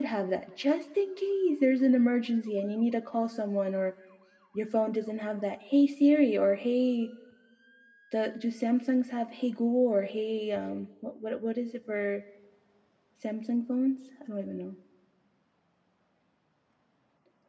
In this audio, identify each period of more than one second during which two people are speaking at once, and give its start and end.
none

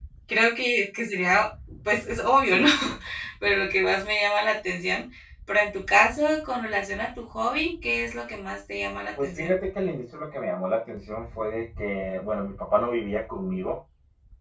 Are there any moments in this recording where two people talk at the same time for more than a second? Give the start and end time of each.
none

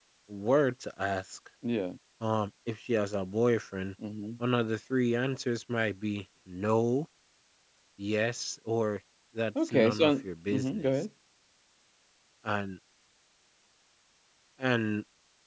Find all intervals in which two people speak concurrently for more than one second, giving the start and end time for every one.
9.6-10.9

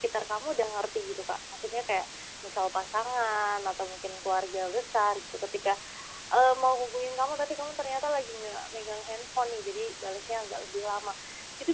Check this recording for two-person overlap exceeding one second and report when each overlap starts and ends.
none

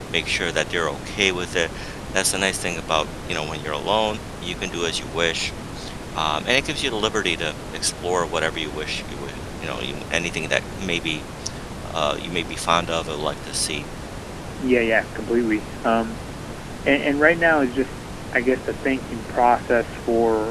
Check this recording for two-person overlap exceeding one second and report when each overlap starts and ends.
none

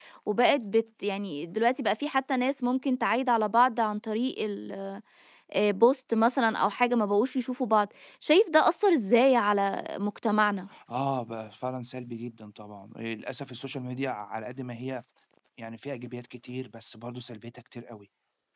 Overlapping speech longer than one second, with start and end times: none

